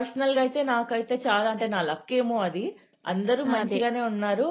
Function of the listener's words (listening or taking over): listening